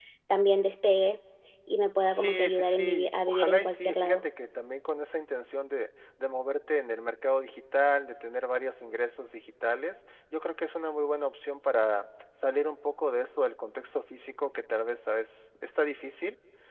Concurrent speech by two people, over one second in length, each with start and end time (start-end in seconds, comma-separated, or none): 2.1-4.2